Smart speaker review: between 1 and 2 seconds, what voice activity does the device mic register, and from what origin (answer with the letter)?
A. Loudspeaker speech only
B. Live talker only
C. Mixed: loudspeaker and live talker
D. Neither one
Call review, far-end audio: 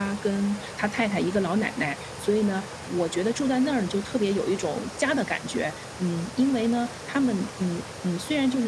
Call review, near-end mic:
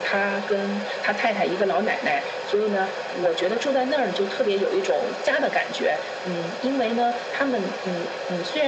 A